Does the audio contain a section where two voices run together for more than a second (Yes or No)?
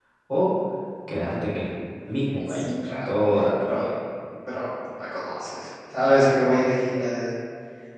No